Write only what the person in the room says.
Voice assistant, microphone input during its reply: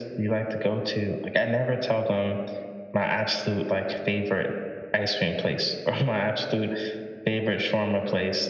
none

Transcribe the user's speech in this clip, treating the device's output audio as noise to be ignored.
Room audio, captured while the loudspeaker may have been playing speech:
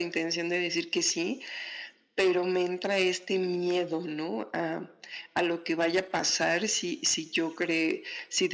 none

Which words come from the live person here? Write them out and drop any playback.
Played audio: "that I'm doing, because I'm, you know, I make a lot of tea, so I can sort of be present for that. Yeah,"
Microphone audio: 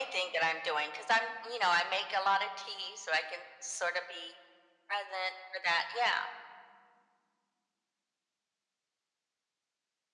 none

